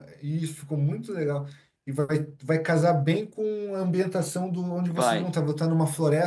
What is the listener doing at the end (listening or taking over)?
listening